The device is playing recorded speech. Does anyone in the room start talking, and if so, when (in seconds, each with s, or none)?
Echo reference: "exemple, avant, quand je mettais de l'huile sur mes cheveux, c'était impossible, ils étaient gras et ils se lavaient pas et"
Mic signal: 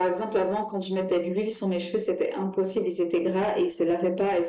none